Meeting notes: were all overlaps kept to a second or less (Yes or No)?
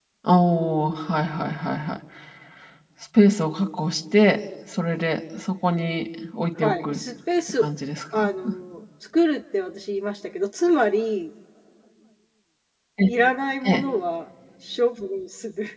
Yes